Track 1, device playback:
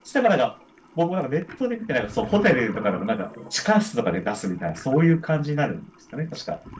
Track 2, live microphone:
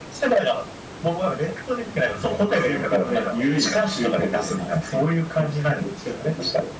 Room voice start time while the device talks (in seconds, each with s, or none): 2.5 s